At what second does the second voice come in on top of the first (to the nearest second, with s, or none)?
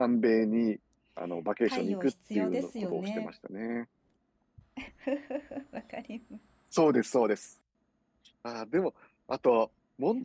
2 s